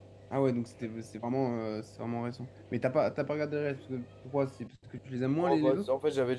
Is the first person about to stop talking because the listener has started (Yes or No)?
Yes